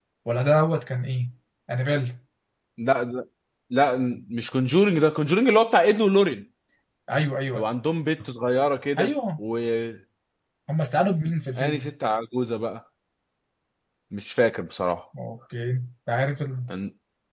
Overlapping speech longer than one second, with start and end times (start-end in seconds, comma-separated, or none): none